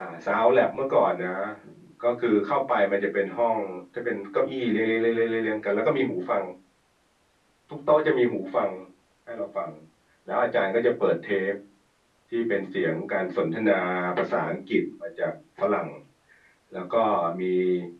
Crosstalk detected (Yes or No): No